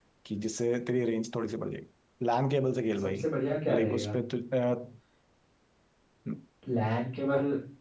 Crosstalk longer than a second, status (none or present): none